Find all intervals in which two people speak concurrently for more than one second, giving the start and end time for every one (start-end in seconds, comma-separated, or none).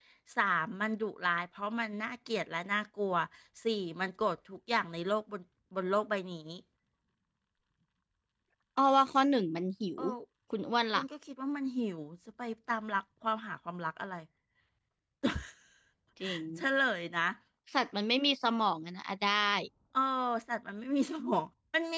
none